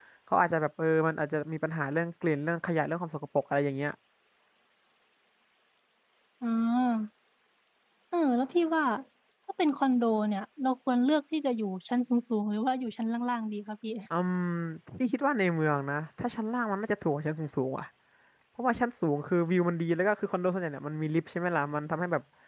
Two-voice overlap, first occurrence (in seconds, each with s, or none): none